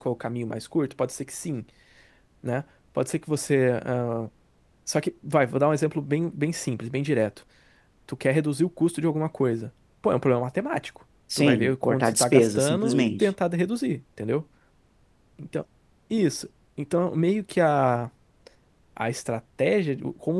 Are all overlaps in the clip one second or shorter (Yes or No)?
No